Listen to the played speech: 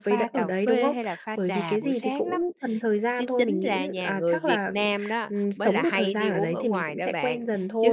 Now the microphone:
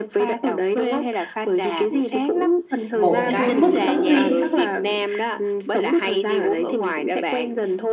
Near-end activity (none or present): present